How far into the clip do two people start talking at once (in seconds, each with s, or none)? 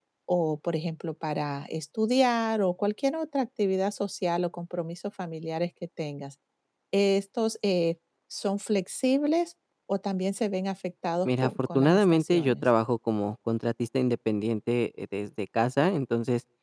11.2 s